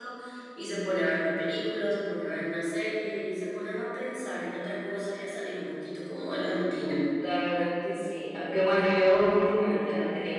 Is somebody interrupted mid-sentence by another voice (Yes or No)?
No